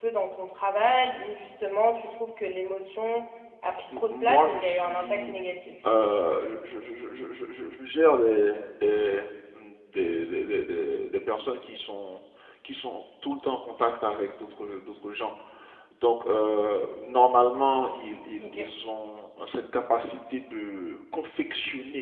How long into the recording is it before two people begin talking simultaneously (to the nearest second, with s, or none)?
4 s